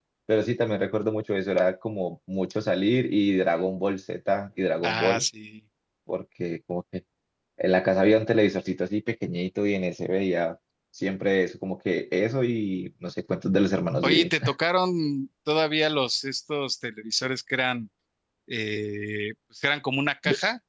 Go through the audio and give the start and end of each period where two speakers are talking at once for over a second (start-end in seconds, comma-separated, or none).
none